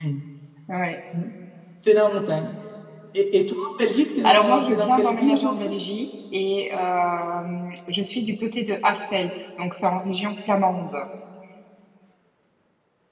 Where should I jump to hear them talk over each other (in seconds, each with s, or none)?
4.2 s